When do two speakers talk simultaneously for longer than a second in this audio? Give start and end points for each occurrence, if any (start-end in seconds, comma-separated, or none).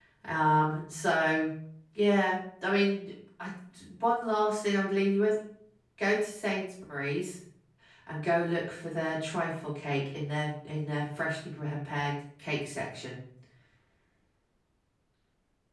none